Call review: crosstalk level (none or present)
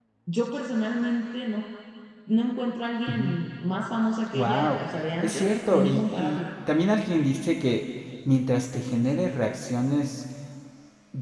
present